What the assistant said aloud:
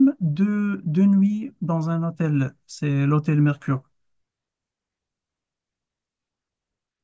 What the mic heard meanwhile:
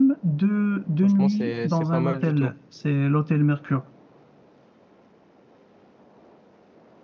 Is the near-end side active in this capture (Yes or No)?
Yes